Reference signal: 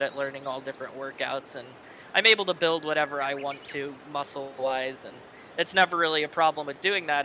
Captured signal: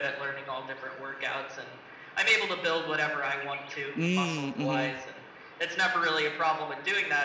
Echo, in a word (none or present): present